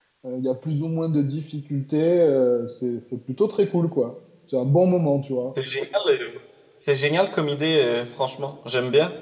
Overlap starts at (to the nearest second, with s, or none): none